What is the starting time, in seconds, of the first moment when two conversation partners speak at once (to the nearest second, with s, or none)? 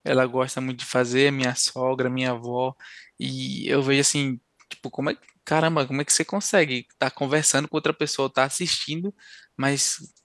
none